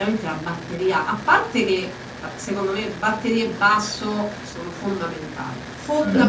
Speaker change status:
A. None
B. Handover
A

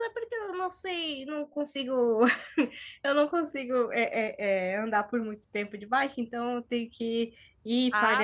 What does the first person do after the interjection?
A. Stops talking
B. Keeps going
A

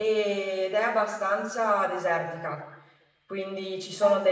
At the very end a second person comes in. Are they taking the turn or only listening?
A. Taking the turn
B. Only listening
B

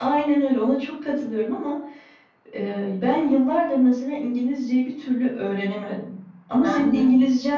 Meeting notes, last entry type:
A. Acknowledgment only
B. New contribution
A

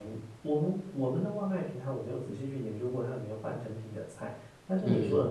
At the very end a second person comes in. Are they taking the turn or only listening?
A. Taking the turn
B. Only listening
B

